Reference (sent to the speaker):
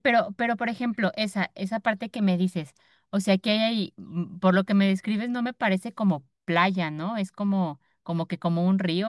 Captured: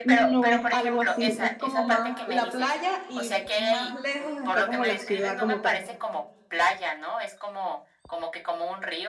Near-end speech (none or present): present